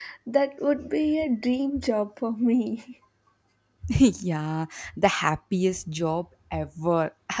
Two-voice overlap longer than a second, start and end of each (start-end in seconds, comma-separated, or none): none